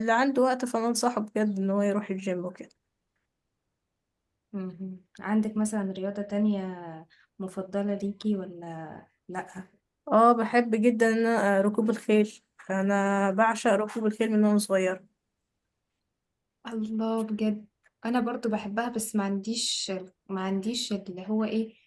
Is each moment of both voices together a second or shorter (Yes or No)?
Yes